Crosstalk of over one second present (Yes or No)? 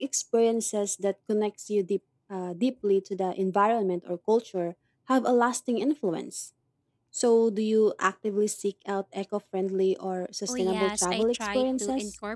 Yes